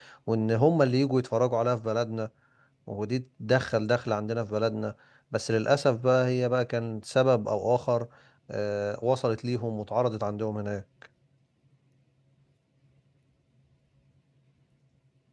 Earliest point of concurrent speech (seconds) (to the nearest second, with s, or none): none